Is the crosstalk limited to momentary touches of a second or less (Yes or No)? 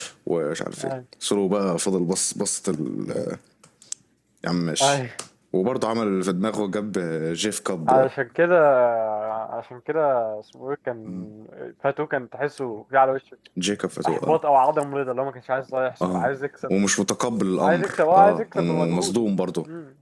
No